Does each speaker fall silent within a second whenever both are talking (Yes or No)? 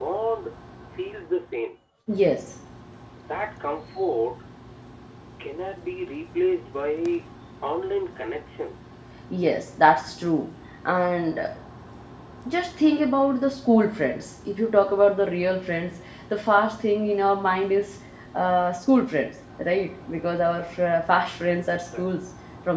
Yes